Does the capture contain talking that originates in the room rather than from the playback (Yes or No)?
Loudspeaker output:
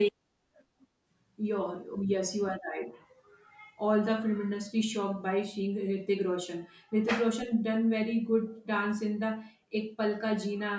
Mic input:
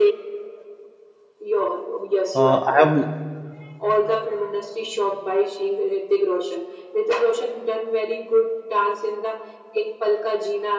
Yes